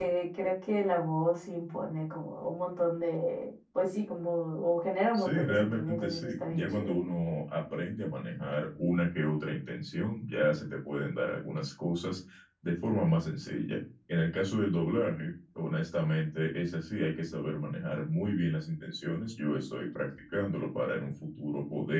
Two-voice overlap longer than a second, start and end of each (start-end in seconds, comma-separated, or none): 5.1-6.9